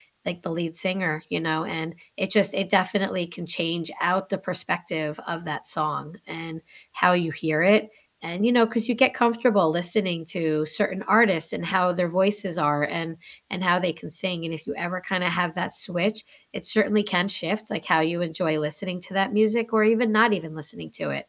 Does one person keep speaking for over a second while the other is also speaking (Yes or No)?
No